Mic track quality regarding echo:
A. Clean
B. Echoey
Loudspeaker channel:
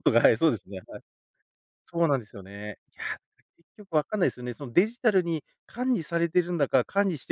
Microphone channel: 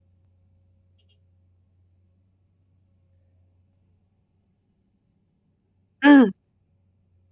A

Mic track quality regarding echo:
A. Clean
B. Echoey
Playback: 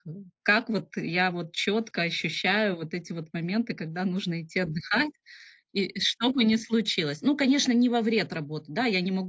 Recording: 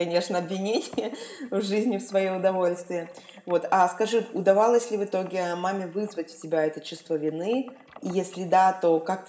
A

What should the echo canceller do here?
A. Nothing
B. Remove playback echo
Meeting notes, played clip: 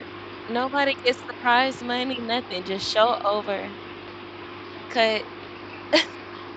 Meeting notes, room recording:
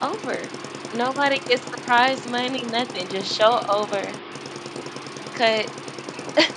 B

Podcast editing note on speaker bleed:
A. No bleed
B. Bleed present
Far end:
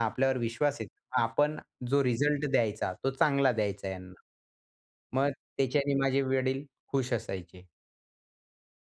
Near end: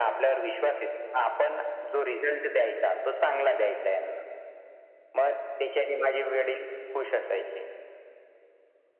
B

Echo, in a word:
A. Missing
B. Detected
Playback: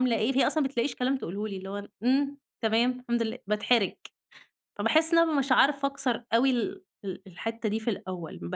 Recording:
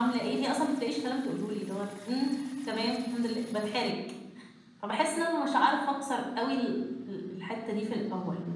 B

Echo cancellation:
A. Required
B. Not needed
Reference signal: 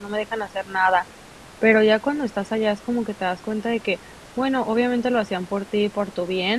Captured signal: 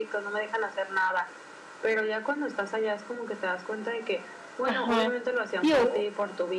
A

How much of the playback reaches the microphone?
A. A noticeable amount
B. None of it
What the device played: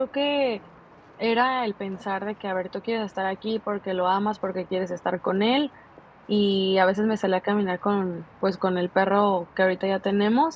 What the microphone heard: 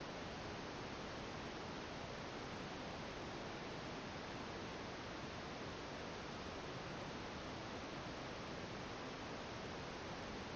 B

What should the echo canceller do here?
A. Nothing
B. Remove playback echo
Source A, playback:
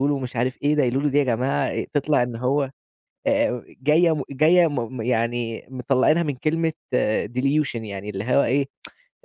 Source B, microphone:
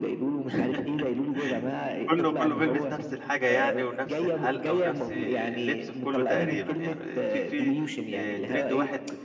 B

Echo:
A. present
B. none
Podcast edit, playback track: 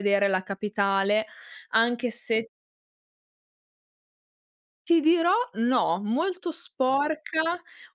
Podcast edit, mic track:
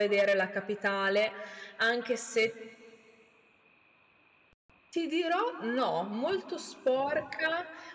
A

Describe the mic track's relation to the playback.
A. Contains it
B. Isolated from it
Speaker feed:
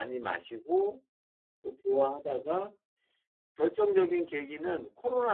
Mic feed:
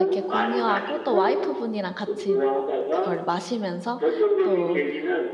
A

